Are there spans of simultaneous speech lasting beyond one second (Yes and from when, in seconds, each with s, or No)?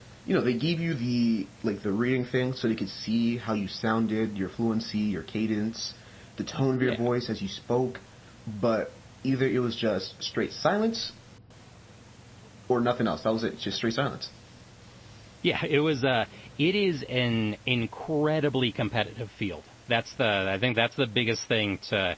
No